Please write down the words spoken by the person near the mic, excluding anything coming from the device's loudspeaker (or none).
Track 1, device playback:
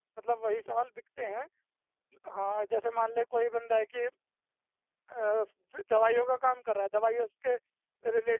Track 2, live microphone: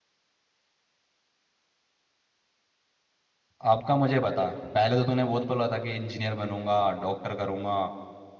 अब का मुझे बता पहले तो तूने बहुत बोला था कि इंजीनियर बनूंगा डॉक्टर करूंगा